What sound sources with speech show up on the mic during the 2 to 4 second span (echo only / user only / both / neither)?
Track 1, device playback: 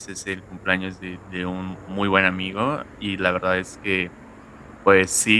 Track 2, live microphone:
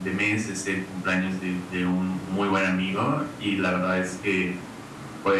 echo only